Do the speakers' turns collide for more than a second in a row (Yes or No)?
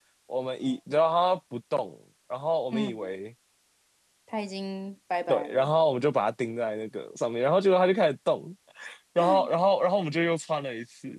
No